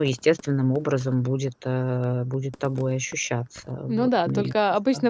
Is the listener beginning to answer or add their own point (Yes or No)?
Yes